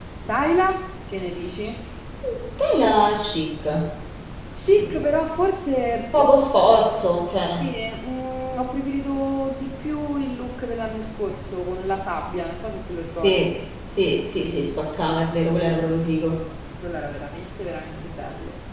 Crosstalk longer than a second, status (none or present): none